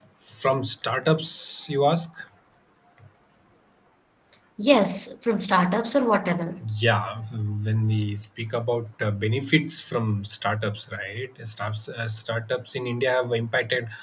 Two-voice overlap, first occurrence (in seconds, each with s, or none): none